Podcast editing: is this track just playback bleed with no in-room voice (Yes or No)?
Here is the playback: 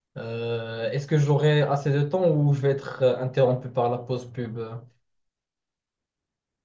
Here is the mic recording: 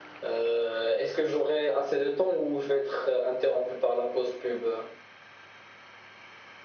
Yes